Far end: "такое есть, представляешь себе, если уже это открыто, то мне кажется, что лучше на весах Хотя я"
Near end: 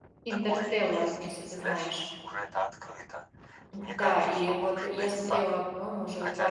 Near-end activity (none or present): present